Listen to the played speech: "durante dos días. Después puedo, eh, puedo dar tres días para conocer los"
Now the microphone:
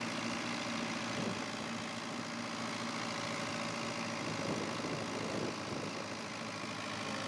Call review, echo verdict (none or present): none